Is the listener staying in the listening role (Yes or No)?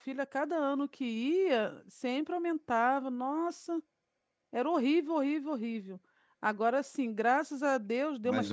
Yes